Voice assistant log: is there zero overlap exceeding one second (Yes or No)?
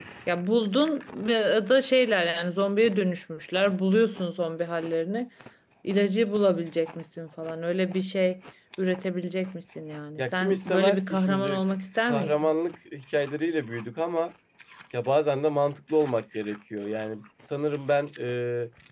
No